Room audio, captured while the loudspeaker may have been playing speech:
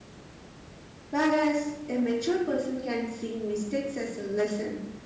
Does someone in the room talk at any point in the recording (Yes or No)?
Yes